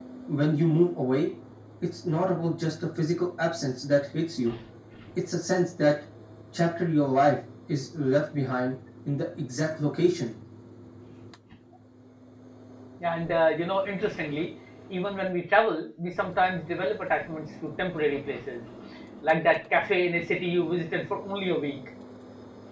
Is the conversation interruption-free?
Yes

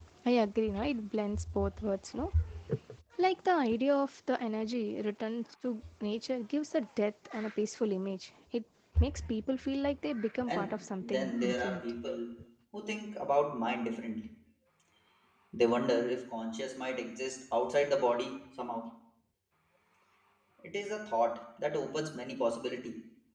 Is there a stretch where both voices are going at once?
Yes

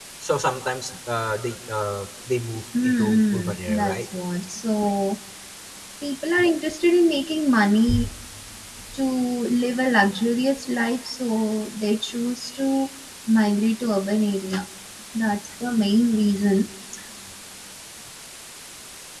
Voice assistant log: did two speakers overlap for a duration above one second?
Yes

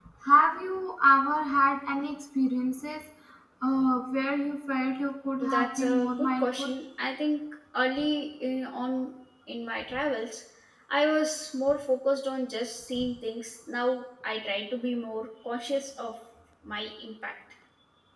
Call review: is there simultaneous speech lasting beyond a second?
Yes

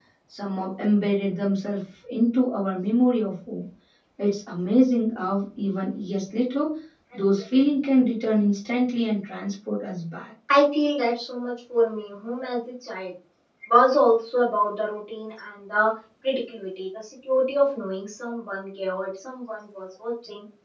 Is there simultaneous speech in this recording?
No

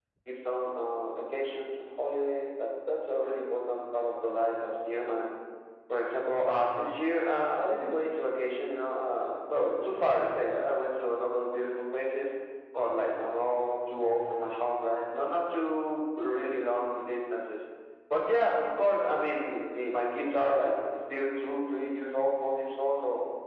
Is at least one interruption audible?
No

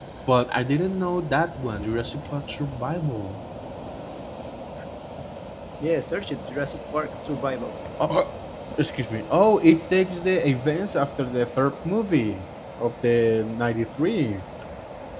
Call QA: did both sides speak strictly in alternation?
Yes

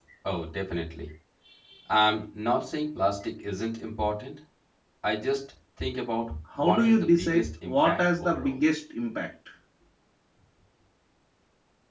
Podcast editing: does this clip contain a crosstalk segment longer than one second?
Yes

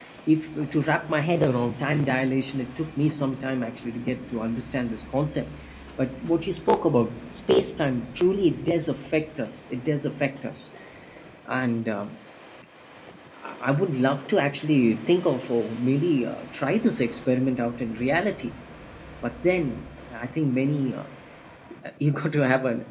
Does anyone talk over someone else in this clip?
No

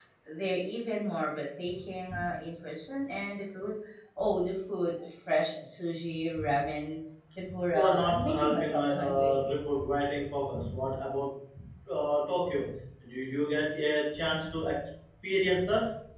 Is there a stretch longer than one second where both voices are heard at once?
Yes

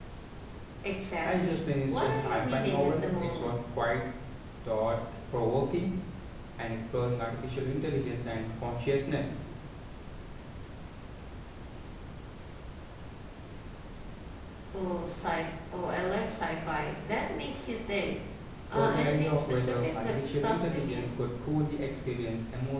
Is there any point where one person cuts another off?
Yes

